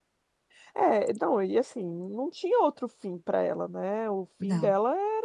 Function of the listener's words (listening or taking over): listening